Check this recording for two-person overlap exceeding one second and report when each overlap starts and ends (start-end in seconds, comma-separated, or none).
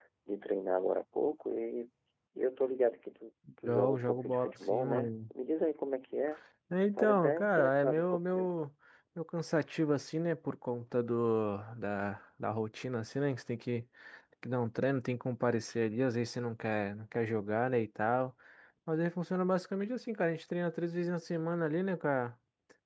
3.6-5.1, 7.0-8.5